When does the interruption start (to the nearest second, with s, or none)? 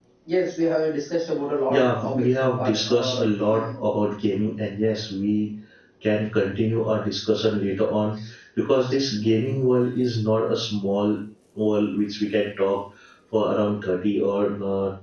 2 s